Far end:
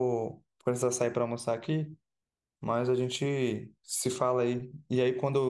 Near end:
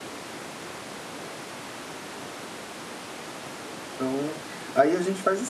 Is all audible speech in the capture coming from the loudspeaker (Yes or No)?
No